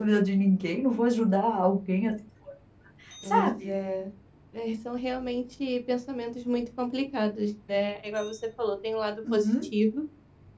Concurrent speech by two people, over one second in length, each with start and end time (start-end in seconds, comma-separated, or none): none